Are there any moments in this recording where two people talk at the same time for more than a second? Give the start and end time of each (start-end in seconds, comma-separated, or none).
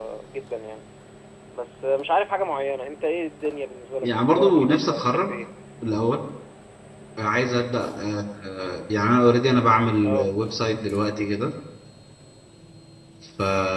4.0-5.3